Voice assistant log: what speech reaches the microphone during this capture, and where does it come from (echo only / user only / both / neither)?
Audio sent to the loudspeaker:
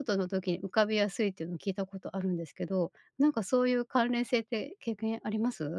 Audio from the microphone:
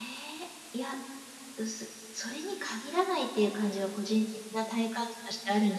user only